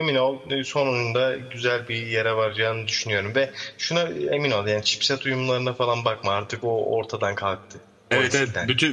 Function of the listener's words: taking over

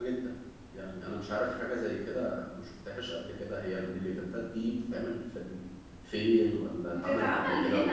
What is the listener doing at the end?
taking over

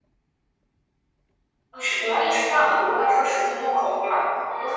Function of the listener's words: listening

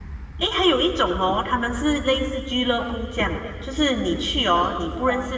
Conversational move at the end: listening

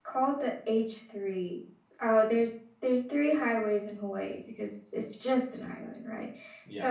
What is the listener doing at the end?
listening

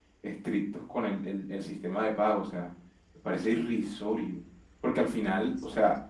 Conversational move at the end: listening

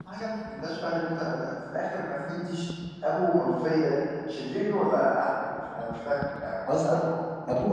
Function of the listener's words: taking over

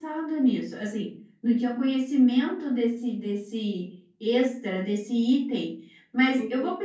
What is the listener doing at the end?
listening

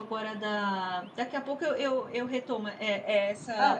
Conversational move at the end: listening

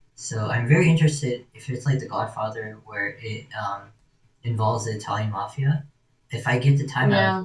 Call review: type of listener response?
listening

